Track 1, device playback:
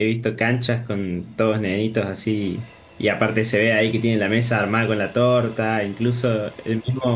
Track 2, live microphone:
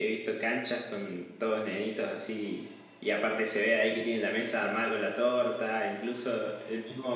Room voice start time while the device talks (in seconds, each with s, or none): none